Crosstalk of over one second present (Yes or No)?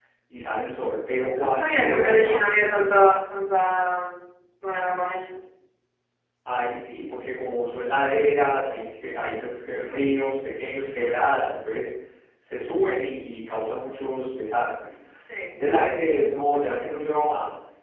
Yes